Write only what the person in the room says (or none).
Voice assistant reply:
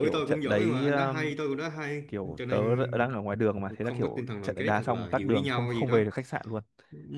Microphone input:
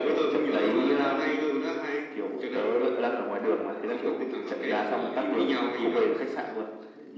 none